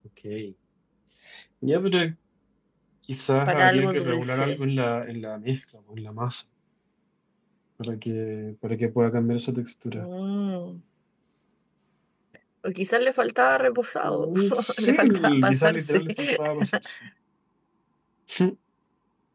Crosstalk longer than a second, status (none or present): present